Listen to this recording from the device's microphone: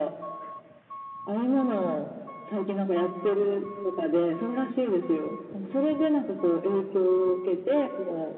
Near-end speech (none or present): none